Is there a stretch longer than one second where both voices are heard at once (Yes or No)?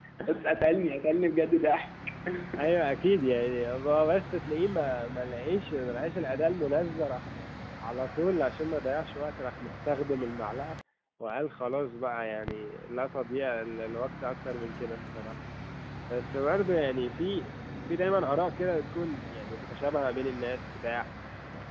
No